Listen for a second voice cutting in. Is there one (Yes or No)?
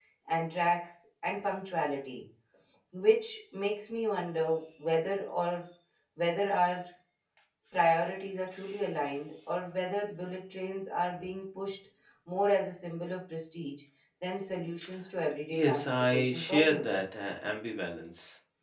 Yes